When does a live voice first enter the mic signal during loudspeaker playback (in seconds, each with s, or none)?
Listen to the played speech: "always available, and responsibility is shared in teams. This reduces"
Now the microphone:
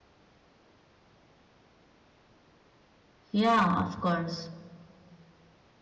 3.3 s